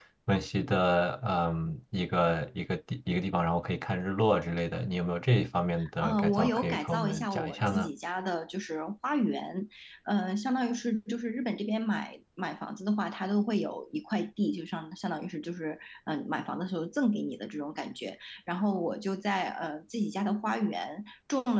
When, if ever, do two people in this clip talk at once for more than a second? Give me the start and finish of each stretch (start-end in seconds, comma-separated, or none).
6.0-7.9